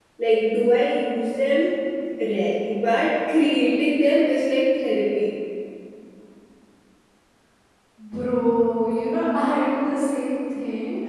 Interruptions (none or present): none